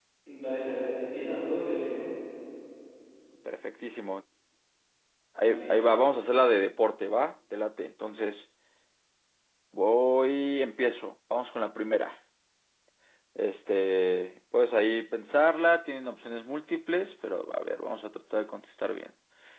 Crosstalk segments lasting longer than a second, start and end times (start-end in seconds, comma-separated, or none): none